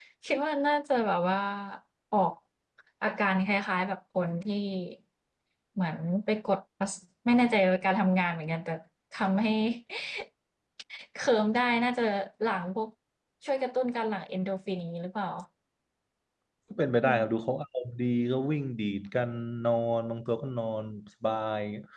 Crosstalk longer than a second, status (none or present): none